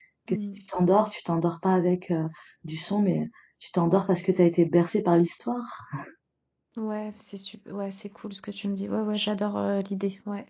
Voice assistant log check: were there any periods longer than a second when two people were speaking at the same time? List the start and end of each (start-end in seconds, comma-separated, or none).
none